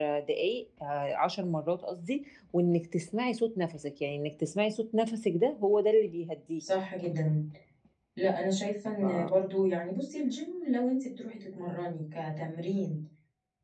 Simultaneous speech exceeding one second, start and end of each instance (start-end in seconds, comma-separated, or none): none